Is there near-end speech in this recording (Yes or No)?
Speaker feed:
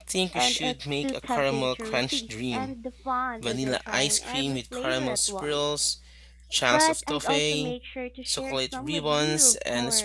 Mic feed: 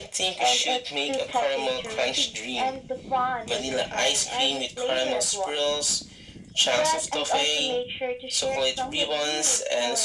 No